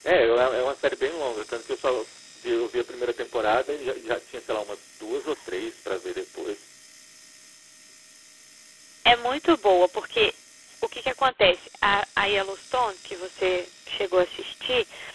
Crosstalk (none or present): none